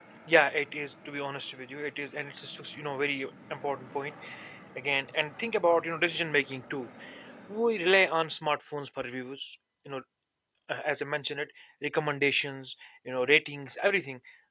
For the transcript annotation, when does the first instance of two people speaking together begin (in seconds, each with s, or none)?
none